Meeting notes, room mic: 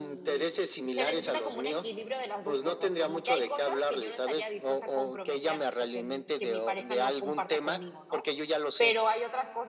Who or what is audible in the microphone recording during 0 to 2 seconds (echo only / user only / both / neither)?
both